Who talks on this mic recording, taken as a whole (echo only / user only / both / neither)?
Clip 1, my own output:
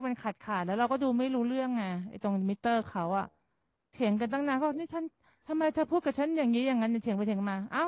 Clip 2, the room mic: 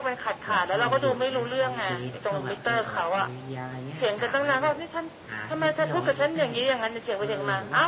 both